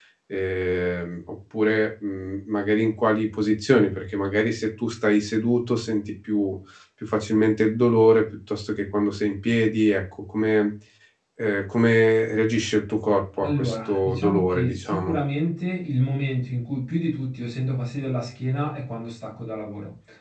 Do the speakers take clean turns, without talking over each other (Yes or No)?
No